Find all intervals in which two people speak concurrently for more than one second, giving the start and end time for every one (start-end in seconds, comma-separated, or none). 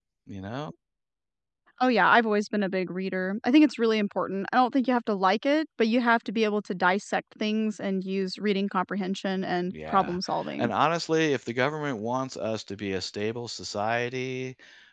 none